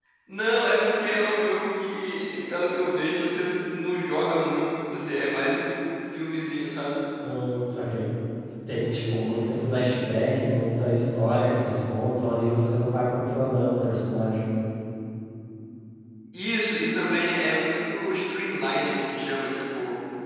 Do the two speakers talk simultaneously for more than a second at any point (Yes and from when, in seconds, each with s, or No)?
No